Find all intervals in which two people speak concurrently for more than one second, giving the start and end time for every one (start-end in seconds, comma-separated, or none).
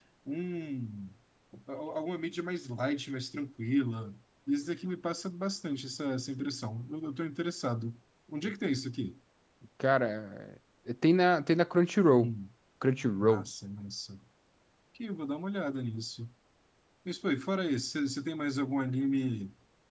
none